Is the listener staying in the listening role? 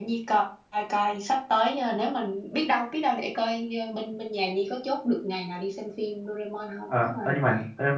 No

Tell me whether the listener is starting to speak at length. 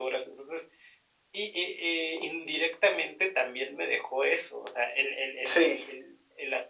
No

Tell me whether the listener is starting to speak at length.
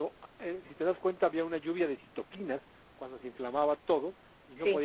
No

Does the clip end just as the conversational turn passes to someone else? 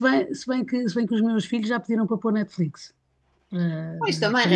Yes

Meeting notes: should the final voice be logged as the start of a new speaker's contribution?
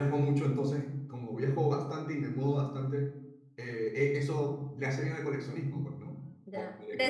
Yes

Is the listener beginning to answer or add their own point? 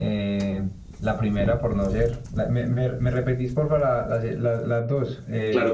Yes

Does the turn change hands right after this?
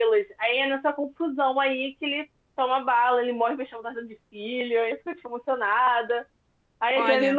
No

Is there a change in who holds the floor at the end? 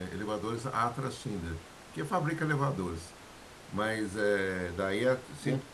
No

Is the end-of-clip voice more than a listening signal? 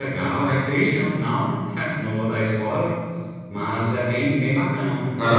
Yes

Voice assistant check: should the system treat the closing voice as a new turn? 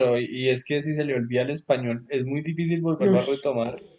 No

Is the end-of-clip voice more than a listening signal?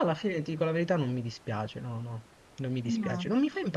No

